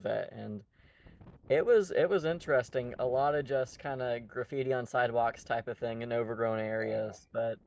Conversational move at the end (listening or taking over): listening